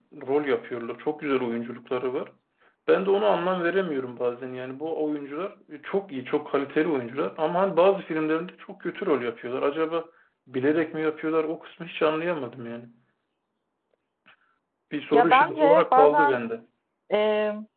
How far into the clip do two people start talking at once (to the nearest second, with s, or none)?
15 s